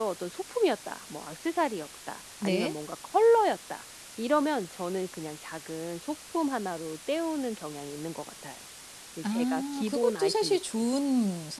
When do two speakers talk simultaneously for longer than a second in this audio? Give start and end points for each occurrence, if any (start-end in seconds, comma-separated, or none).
9.3-10.6